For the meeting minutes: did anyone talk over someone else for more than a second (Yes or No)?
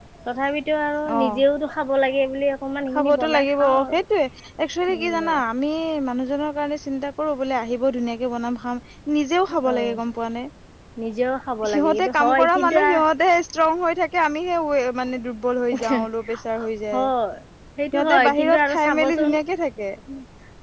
Yes